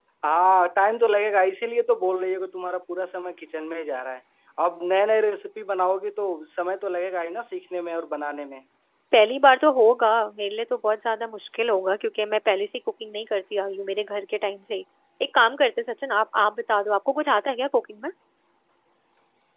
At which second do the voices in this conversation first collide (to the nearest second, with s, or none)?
none